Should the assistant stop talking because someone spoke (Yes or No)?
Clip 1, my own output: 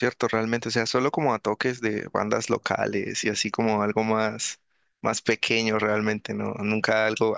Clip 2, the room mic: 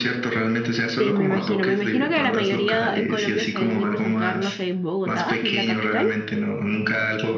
Yes